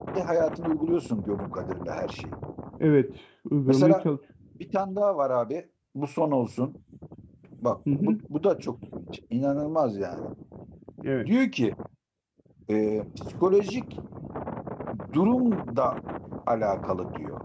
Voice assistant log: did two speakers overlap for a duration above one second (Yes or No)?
No